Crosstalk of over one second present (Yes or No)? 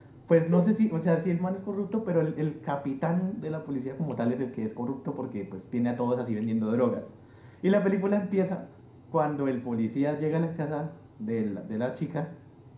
No